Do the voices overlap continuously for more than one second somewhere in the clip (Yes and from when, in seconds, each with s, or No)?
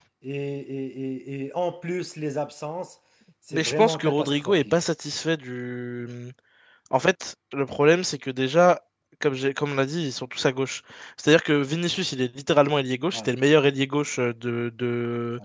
Yes, from 3.5 s